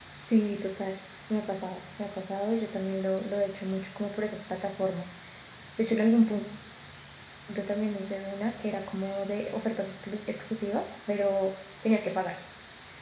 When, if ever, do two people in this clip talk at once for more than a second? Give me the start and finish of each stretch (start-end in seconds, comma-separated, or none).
none